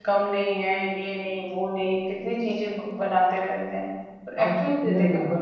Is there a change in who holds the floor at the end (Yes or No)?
Yes